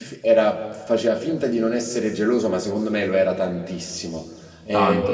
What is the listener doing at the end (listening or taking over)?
listening